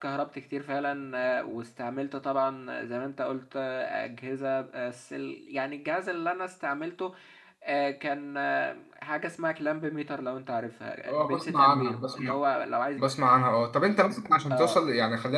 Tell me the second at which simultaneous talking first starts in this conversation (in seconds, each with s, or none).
11.1 s